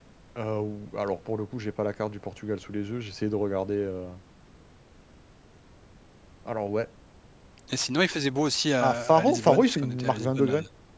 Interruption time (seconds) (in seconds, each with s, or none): 8.8 s